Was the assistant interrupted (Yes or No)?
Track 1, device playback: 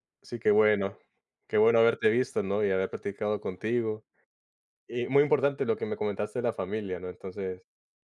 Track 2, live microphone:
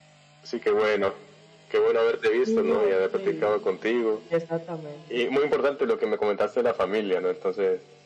Yes